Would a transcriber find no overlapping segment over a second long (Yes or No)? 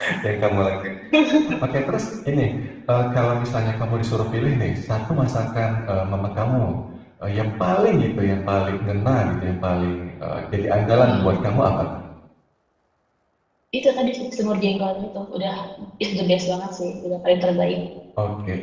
Yes